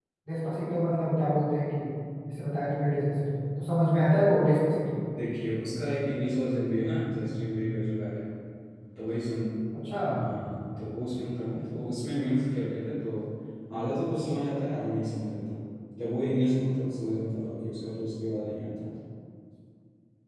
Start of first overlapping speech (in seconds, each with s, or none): none